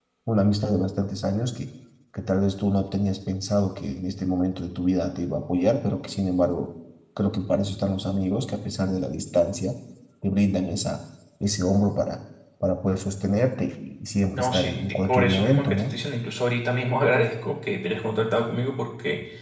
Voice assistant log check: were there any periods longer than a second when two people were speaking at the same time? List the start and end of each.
14.3-15.9

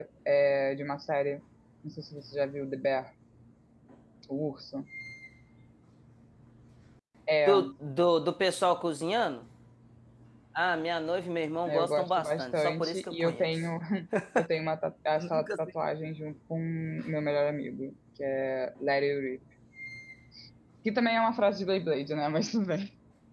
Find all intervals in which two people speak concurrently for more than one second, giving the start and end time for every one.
11.7-13.5

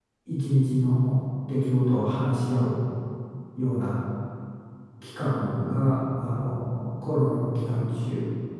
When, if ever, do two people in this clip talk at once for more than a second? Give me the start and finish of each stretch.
none

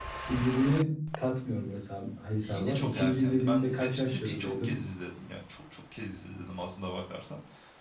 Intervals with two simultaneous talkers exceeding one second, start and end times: 2.4-4.7

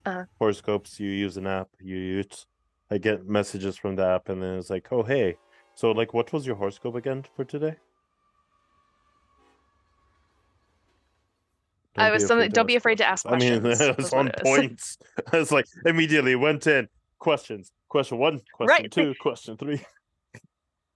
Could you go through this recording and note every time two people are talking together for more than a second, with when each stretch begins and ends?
12.0-14.6

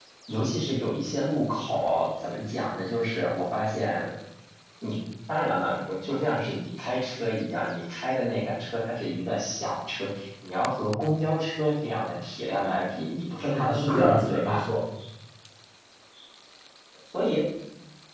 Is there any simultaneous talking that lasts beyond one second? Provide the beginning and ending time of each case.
13.4-14.7

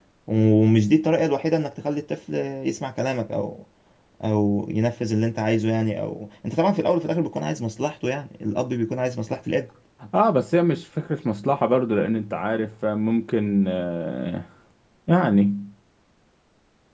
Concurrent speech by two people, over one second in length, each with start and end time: none

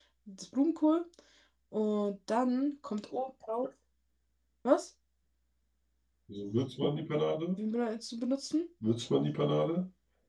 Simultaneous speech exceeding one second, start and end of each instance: none

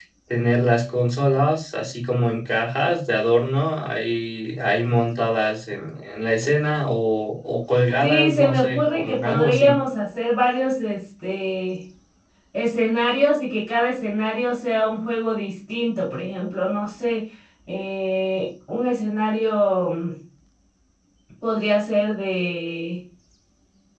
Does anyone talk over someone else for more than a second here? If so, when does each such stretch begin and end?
8.0-9.8

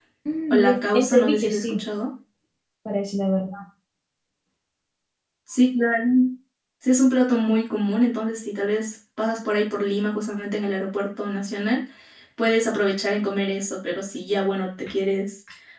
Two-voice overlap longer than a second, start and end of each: 0.5-1.8

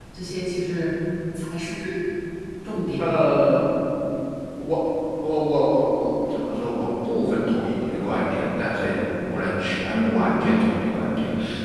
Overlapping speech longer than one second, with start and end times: none

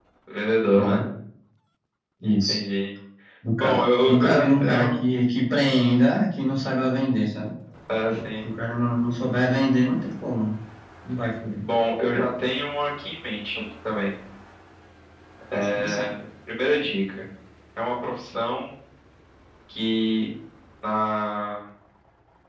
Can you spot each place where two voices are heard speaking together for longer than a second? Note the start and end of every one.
3.6-5.0

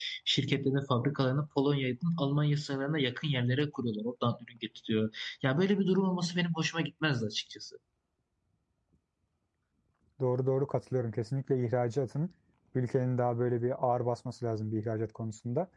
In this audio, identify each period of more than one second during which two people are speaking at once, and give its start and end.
none

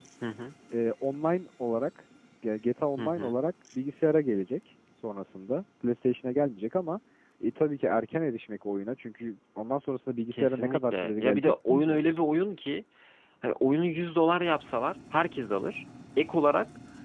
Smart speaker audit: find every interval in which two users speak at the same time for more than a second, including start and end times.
10.3-12.0

